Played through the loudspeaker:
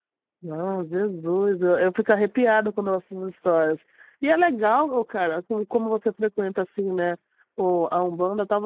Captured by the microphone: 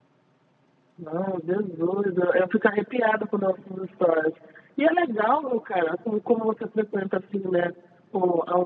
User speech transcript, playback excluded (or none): none